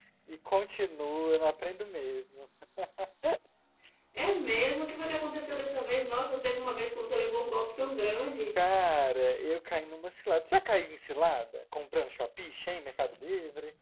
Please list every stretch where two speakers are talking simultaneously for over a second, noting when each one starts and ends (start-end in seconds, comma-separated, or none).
none